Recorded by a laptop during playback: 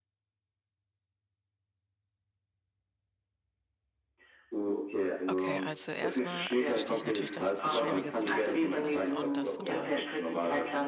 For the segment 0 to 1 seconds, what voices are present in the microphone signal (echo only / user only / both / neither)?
neither